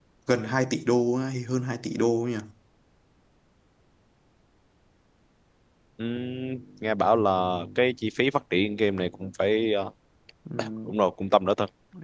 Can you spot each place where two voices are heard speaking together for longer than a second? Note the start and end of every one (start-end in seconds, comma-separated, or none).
none